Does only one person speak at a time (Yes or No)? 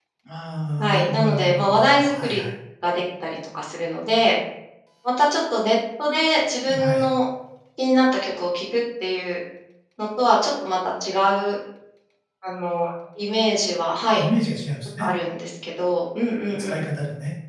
No